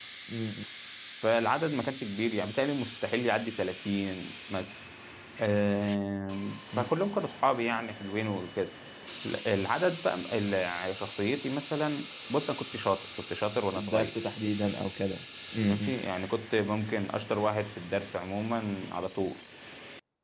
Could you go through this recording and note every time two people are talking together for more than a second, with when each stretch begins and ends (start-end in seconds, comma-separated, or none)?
none